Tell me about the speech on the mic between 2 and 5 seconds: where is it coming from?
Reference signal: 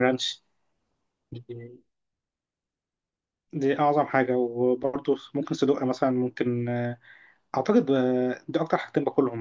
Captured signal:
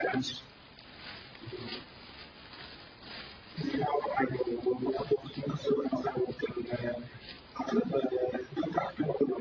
echo only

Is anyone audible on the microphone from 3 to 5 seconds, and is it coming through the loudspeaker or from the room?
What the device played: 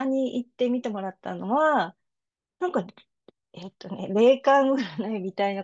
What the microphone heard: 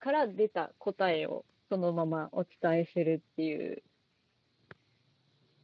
user only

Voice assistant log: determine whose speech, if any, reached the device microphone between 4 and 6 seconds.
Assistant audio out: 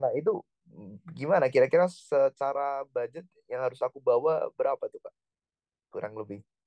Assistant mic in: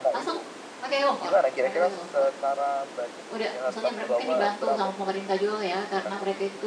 both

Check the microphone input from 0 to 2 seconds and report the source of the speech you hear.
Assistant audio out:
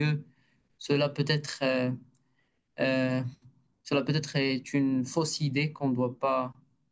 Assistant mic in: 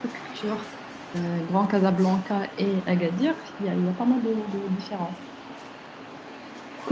user only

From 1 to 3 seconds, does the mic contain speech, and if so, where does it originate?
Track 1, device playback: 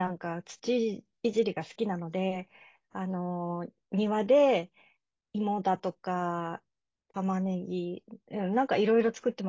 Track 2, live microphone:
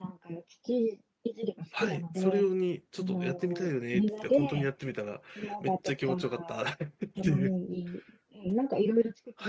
both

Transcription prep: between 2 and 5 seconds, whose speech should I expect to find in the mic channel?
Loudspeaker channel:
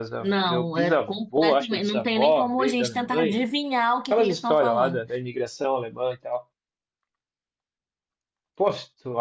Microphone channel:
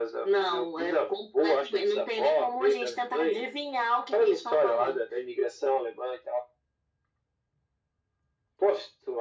echo only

